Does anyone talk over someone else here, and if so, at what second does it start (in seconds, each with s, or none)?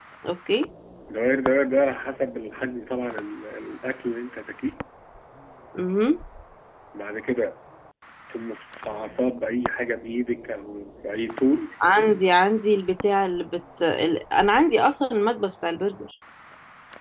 none